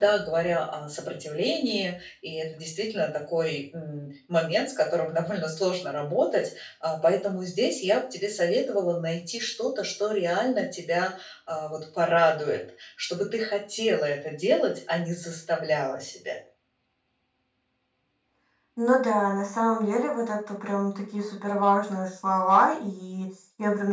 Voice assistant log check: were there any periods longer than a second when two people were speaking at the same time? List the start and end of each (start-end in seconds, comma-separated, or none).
none